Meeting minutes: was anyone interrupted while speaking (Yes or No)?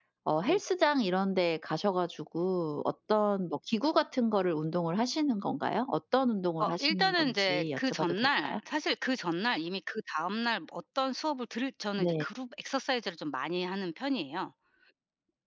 Yes